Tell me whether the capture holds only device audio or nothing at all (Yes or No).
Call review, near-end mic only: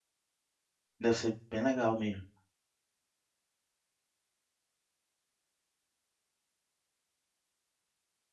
No